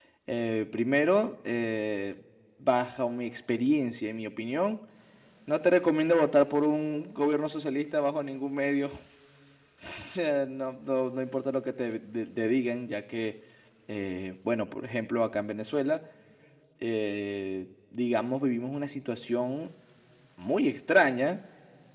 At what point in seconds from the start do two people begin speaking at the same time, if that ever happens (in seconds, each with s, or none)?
none